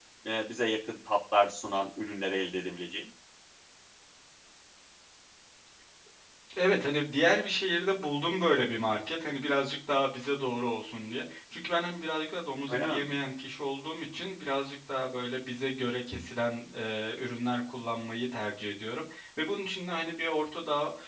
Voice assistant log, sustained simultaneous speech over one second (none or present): none